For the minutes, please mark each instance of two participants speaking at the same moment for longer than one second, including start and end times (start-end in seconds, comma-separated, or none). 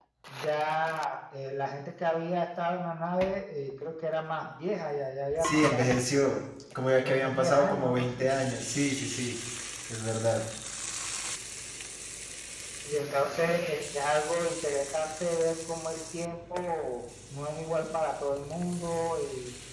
7.0-8.3